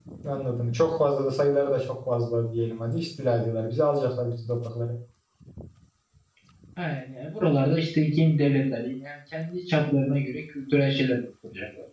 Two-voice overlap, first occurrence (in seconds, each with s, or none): none